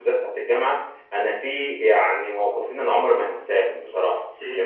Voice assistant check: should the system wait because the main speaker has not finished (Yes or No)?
Yes